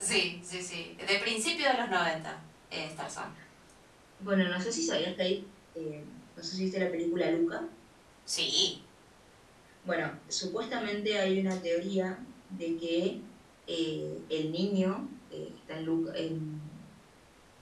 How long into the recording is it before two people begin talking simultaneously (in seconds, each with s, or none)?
none